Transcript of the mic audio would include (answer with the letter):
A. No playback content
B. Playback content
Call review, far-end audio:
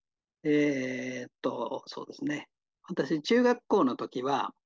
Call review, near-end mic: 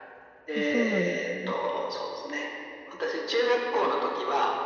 B